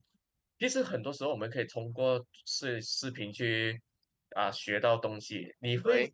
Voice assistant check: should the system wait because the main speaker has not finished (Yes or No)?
Yes